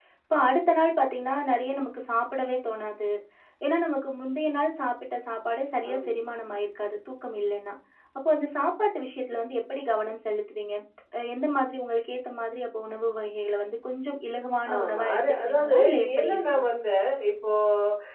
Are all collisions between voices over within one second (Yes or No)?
No